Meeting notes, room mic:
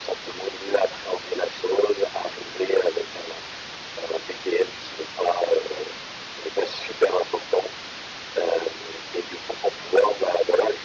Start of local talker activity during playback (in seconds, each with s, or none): none